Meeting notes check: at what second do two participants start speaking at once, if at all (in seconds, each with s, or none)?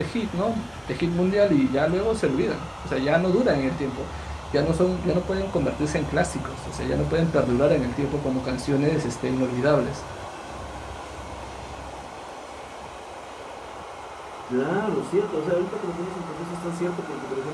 none